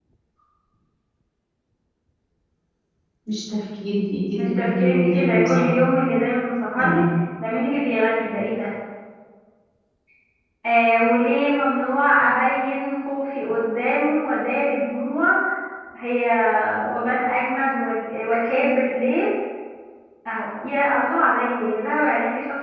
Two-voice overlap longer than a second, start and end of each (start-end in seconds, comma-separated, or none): 4.3-5.9